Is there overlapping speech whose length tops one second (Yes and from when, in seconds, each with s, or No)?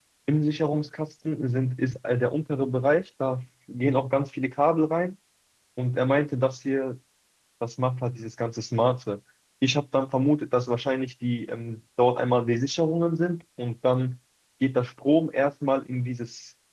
No